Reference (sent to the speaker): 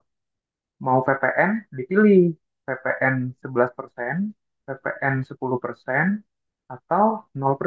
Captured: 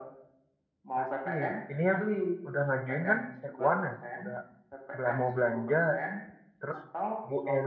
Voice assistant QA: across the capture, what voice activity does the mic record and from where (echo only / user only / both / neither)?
both